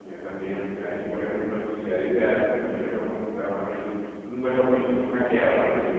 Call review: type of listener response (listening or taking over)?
listening